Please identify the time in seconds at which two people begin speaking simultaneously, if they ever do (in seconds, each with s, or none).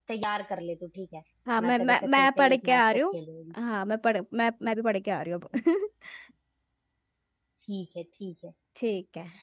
1.5 s